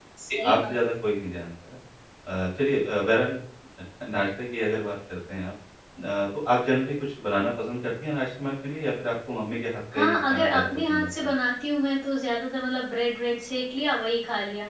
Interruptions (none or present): present